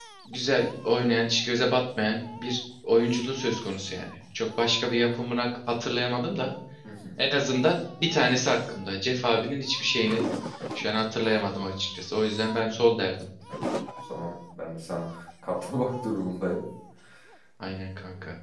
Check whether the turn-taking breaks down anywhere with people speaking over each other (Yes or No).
No